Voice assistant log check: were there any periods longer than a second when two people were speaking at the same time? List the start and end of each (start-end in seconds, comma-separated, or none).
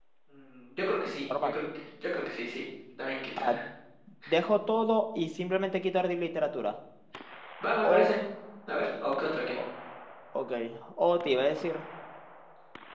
none